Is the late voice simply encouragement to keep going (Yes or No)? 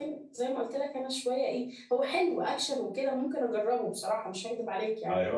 Yes